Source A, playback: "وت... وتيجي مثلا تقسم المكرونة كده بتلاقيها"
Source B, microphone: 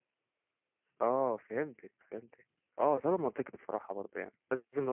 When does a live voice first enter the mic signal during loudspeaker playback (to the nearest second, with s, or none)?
1 s